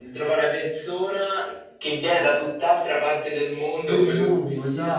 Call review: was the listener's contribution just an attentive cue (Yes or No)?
No